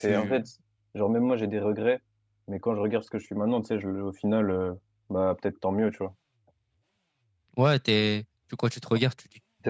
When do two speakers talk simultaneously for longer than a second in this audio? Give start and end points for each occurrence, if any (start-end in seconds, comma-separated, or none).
none